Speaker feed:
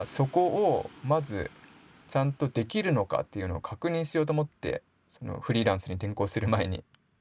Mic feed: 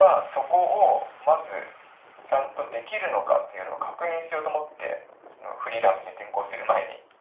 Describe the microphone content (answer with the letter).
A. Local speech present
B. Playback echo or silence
B